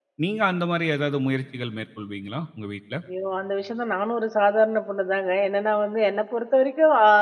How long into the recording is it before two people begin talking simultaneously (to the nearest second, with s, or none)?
none